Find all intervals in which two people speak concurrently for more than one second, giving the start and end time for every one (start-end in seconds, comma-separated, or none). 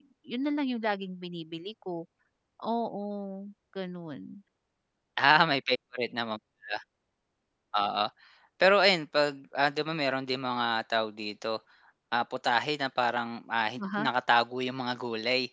none